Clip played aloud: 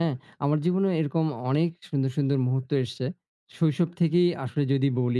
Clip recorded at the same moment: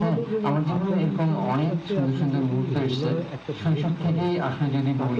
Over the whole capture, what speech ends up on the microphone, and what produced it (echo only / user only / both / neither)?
both